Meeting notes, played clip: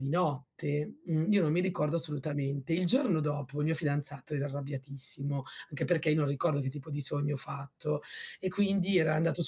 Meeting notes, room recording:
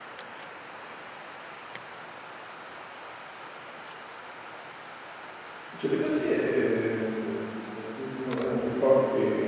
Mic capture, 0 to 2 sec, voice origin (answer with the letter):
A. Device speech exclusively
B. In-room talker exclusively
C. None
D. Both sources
C